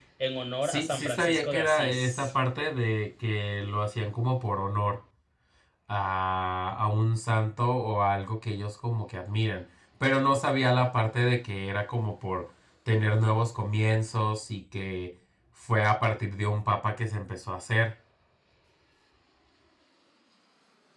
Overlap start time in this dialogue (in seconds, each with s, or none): 0.6 s